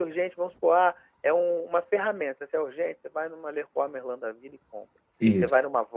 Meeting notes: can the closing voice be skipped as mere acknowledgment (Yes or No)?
Yes